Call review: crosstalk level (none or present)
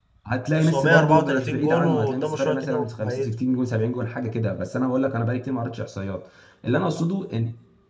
present